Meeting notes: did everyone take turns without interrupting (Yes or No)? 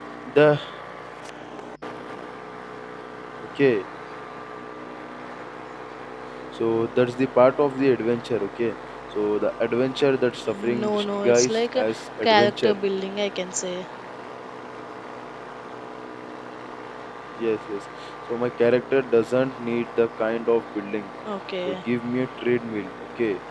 No